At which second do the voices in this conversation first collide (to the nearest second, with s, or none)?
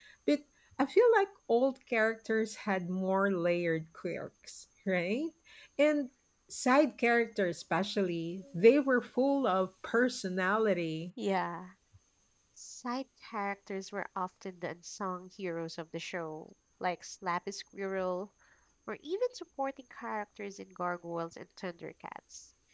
none